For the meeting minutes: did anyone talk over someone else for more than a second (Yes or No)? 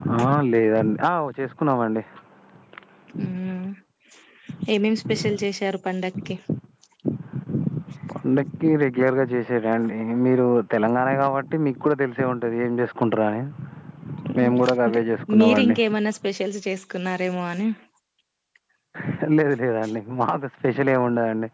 No